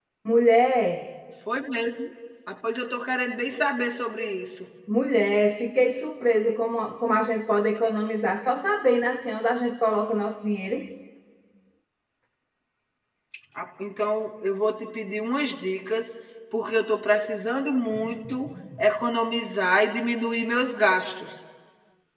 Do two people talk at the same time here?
No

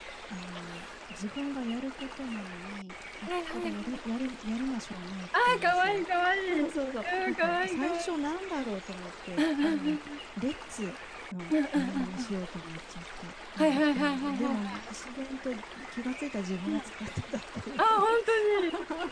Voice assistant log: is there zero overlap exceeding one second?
No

